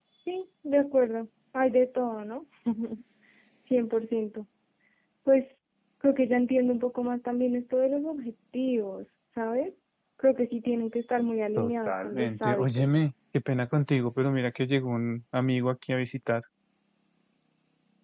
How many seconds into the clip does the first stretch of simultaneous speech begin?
11.6 s

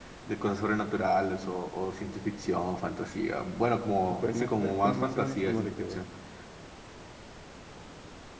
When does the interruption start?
4.1 s

